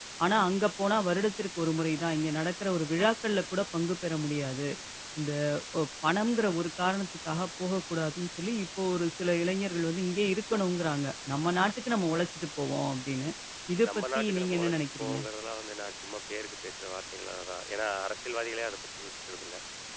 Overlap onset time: 13.9 s

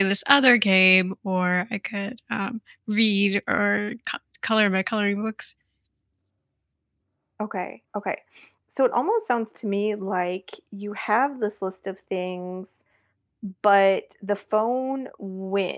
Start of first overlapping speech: none

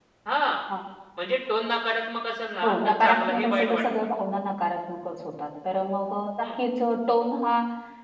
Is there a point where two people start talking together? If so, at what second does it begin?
2.6 s

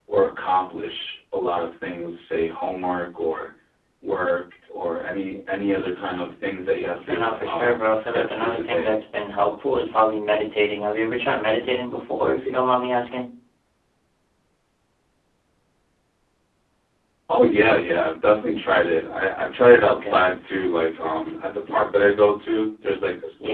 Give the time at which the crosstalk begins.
7.1 s

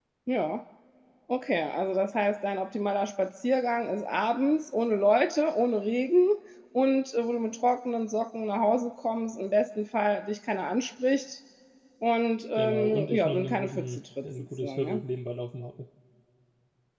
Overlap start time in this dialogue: 12.6 s

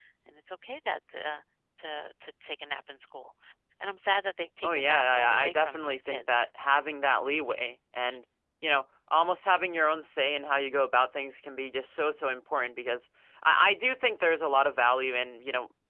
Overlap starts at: 4.6 s

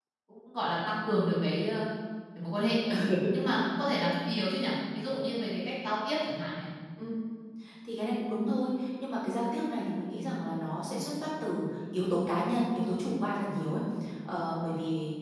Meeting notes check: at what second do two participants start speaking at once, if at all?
none

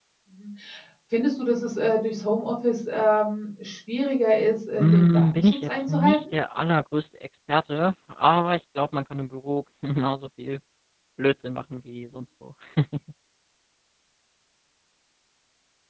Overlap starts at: 4.8 s

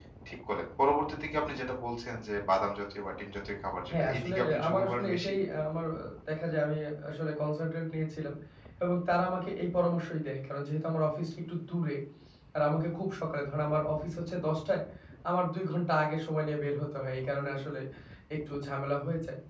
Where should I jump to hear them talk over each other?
3.9 s

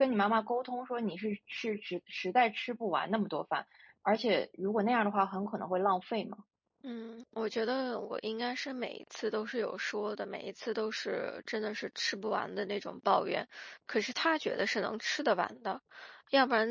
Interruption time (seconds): none

